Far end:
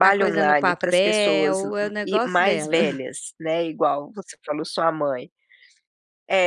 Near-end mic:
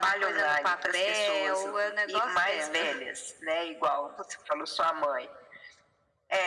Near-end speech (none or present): none